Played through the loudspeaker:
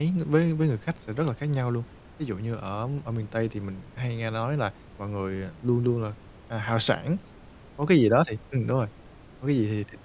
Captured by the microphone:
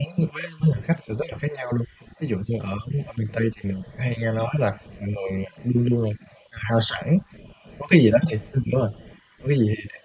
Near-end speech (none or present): none